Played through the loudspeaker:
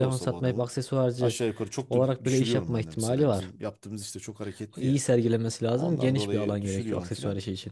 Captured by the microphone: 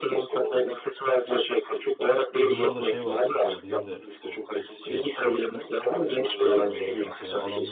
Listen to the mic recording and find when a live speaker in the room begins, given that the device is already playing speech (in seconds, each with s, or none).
2.4 s